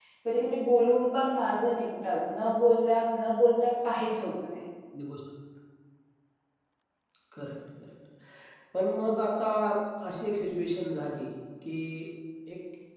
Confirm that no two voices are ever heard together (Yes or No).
Yes